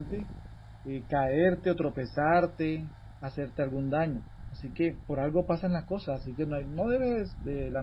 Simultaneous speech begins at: none

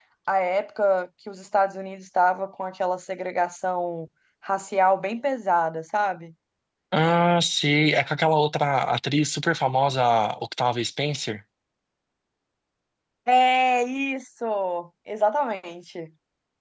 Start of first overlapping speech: none

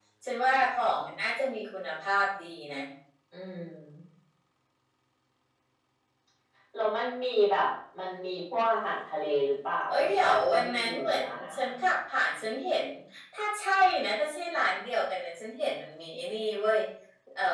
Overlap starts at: 9.9 s

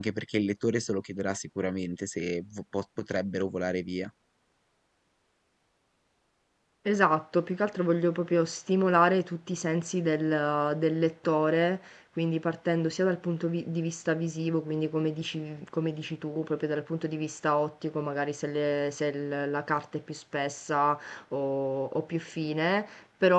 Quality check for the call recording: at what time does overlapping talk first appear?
none

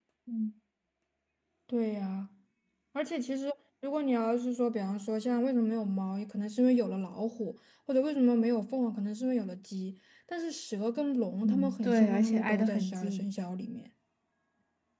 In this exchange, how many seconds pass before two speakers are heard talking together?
11.4 s

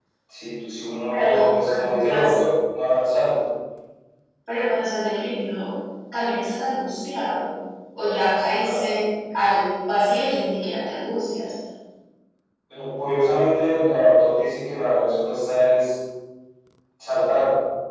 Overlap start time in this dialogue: 1.1 s

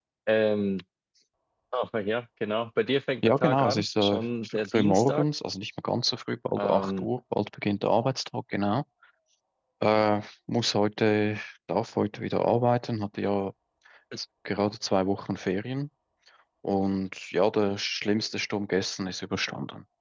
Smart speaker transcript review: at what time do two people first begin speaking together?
3.2 s

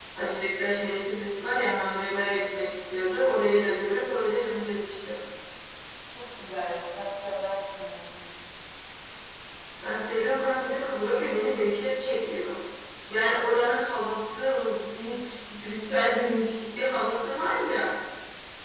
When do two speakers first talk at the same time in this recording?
none

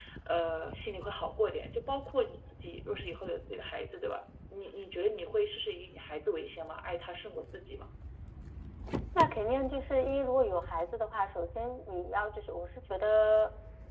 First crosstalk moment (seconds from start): none

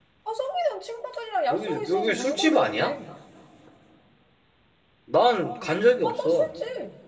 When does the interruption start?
1.5 s

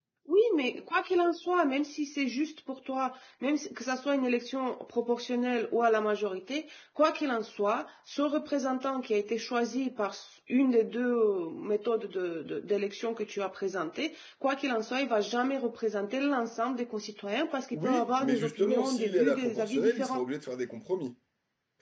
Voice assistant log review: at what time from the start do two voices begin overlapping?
17.7 s

